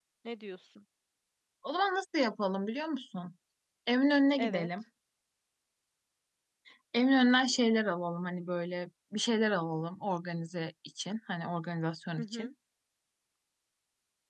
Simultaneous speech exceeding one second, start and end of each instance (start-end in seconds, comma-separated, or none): none